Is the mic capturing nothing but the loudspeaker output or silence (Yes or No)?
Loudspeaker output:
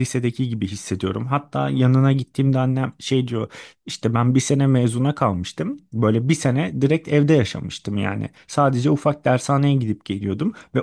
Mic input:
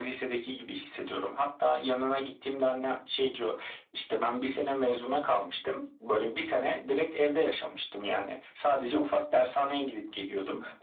Yes